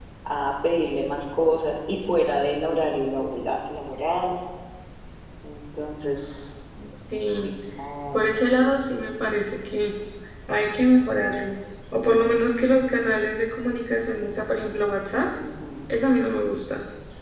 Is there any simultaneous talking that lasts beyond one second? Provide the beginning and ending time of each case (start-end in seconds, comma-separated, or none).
none